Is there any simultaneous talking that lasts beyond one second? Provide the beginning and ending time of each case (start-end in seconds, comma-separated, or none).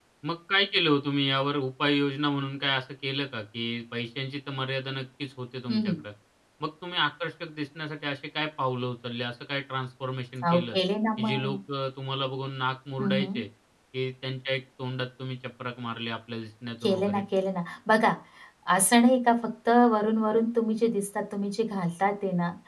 none